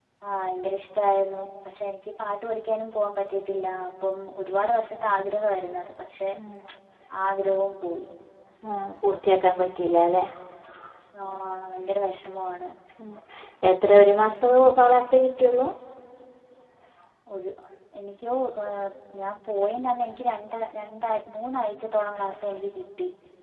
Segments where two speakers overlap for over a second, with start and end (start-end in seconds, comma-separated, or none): none